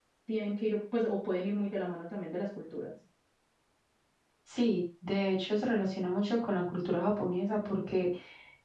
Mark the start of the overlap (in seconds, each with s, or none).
none